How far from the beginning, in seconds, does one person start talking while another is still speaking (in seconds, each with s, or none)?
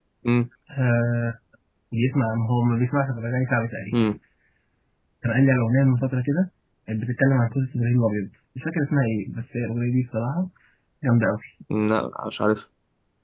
none